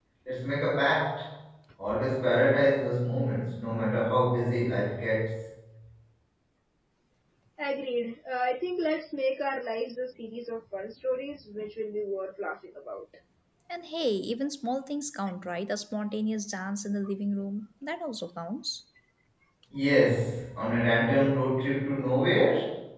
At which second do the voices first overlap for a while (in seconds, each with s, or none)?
none